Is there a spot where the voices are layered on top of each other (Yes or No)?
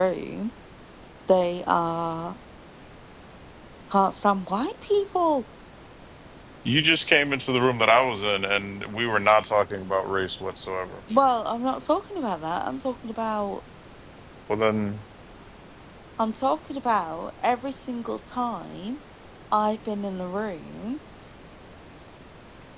No